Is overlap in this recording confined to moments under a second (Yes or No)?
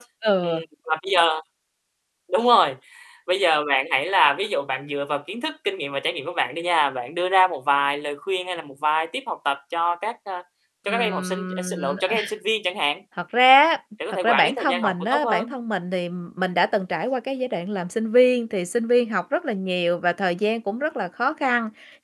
No